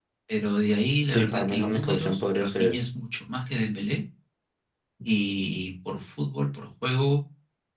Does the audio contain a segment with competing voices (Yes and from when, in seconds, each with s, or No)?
Yes, from 1.1 s